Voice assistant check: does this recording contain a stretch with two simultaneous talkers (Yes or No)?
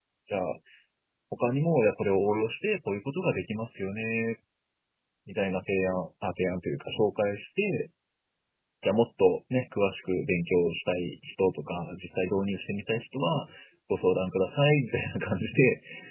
No